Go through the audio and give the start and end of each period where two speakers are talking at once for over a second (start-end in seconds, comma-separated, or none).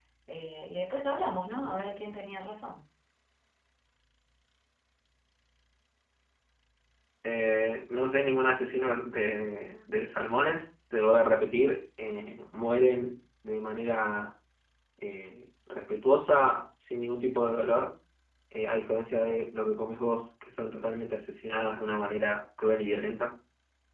none